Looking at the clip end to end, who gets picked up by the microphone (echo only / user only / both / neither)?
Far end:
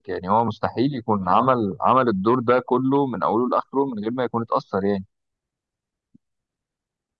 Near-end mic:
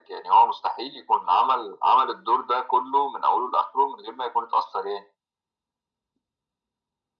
echo only